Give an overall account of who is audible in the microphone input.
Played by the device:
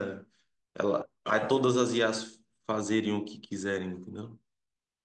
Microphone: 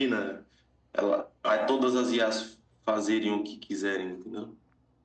echo only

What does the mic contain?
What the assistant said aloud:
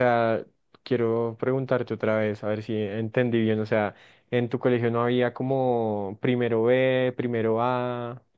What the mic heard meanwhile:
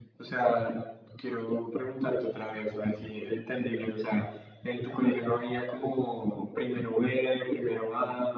echo only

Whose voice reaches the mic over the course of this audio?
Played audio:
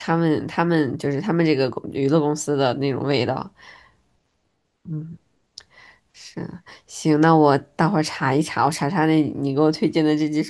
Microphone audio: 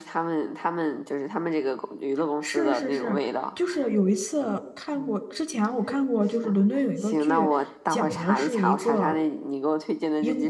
both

